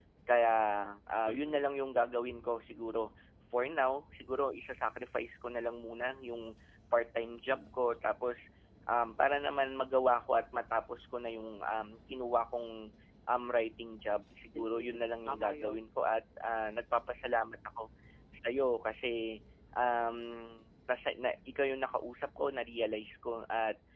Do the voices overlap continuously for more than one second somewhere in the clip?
Yes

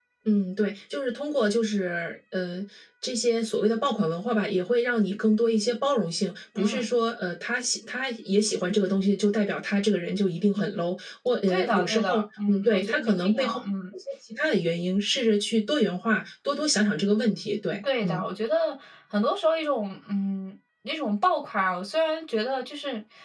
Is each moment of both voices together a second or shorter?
No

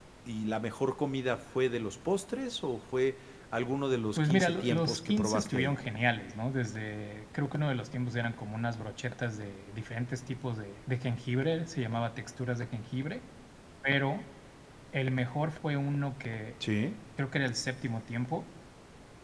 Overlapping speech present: Yes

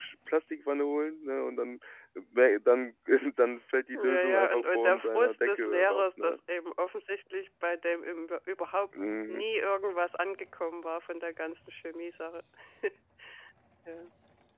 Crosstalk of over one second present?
Yes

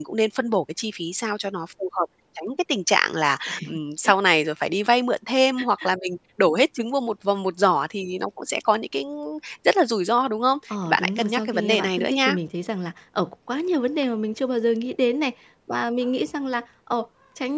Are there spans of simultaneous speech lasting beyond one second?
Yes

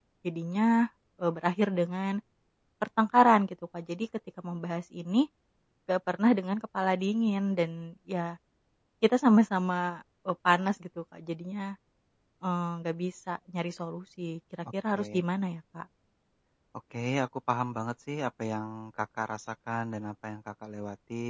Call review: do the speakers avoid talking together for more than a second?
Yes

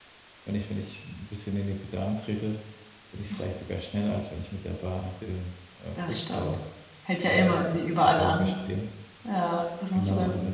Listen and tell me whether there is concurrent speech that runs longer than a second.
Yes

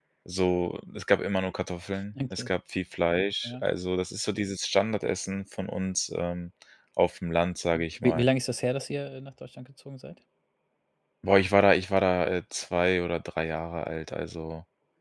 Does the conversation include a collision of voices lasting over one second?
No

